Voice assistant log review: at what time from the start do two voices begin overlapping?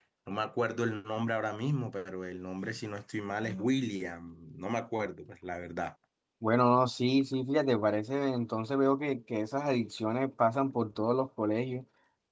none

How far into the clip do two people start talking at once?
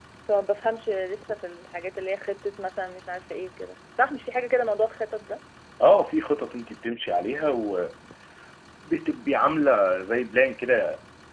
none

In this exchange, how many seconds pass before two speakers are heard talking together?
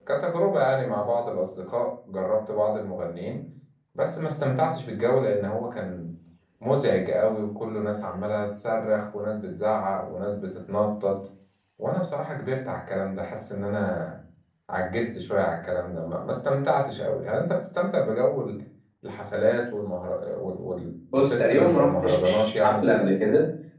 21.1 s

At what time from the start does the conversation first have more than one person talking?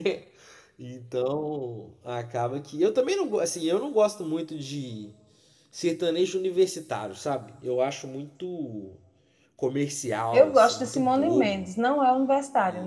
10.3 s

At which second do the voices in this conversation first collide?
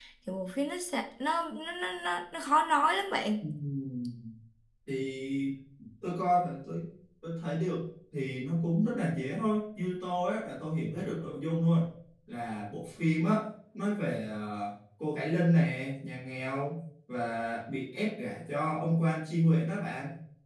none

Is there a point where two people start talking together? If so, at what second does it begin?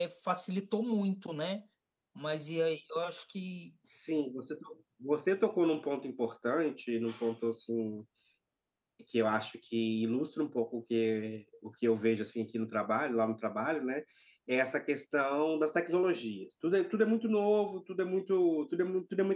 none

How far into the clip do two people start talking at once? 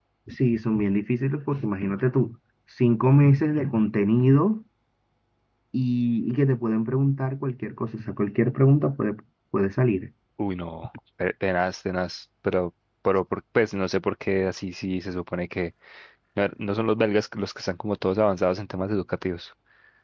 none

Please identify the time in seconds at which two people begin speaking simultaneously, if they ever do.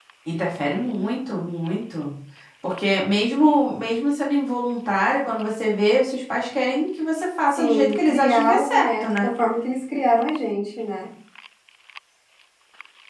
7.6 s

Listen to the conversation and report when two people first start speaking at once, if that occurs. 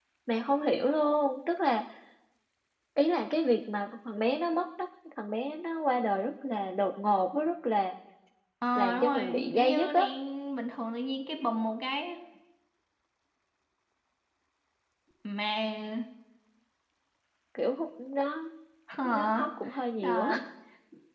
8.8 s

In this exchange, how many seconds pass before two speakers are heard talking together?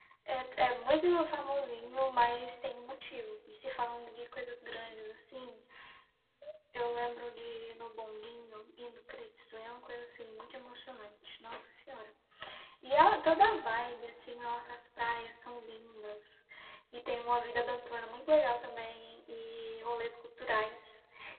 none

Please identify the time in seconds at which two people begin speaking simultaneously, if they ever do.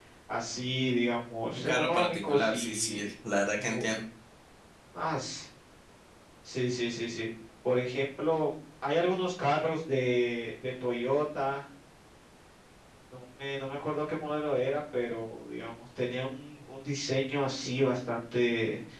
1.6 s

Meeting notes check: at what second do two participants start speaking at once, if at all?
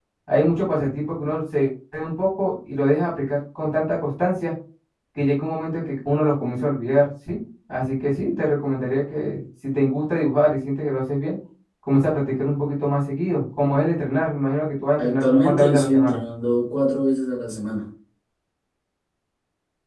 15.0 s

